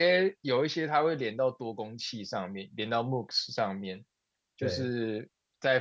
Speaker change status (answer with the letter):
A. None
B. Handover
A